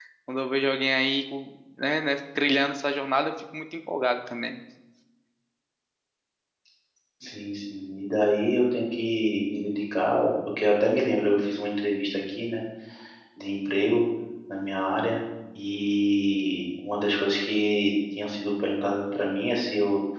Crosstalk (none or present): none